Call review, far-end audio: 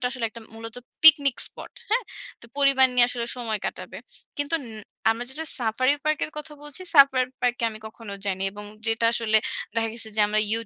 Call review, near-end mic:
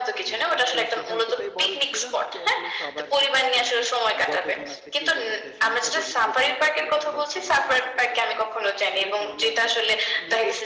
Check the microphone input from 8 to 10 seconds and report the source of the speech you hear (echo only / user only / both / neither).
both